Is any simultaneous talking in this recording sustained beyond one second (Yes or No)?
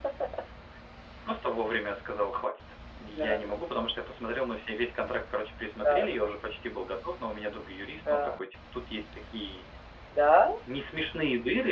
No